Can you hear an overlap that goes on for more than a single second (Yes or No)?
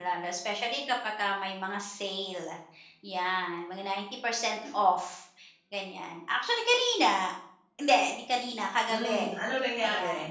No